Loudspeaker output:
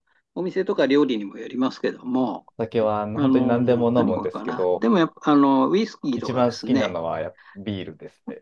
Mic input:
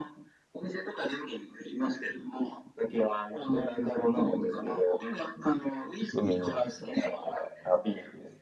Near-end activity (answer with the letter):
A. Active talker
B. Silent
A